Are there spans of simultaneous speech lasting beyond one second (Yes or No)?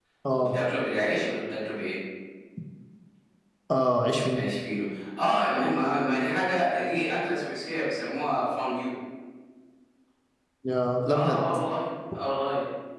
No